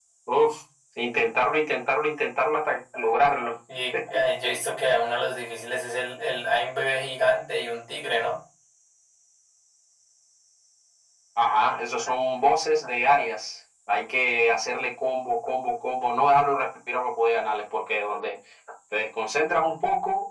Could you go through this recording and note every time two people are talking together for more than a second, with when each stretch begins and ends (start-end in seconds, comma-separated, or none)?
none